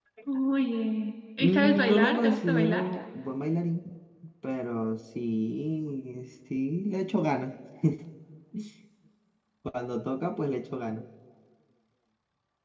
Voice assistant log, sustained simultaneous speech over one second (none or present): present